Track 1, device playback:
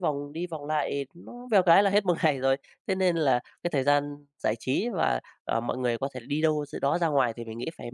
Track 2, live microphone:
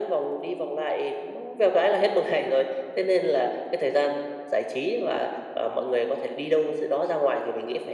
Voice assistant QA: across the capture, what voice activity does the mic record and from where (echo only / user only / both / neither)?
echo only